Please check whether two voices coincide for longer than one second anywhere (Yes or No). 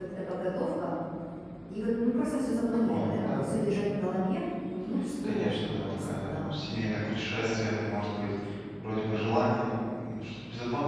Yes